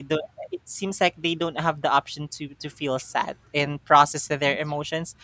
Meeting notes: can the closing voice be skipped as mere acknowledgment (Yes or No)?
Yes